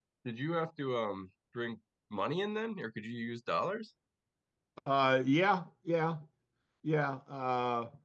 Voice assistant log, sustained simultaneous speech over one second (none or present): none